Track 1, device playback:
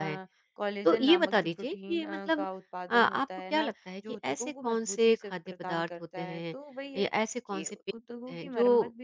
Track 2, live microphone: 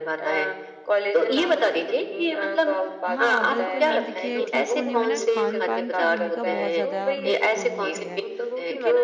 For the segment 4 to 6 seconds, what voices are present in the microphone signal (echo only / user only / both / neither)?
both